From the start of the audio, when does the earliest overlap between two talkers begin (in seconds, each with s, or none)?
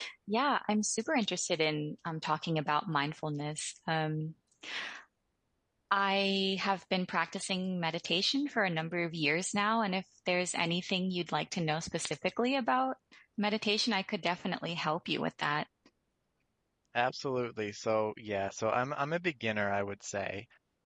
none